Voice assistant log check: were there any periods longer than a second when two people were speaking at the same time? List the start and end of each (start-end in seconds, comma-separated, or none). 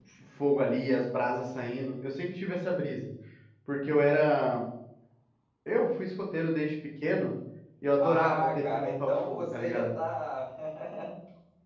8.0-10.0